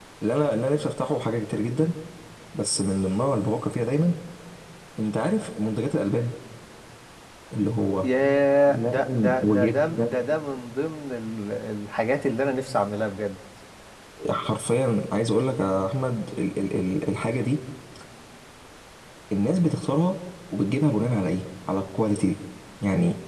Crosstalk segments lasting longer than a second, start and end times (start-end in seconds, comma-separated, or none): 8.7-10.2